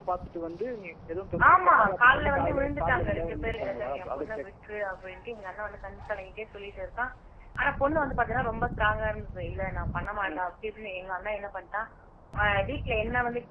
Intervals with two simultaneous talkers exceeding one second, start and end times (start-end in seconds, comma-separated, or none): 1.5-4.5